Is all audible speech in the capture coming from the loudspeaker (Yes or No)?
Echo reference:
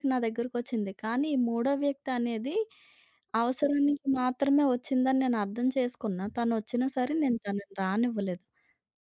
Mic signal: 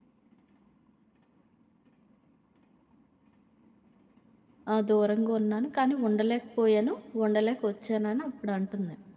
No